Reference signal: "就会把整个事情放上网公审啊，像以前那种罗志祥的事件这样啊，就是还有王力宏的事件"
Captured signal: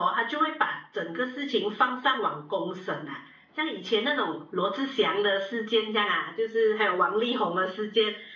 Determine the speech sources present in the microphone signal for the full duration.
echo only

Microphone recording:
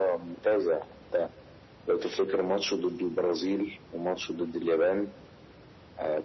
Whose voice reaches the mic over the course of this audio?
echo only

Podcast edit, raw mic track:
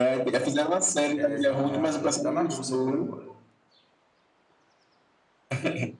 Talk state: both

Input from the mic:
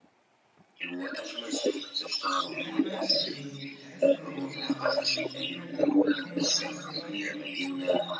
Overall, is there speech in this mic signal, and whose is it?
both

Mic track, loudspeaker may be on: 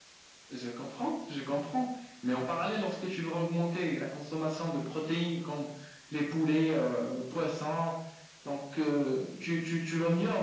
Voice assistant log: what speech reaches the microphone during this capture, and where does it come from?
echo only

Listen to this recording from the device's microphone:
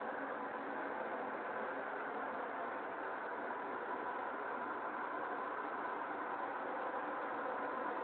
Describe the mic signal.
neither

